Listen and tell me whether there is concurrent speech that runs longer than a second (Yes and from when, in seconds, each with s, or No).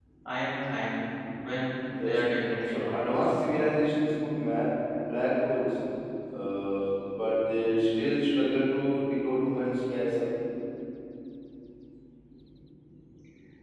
No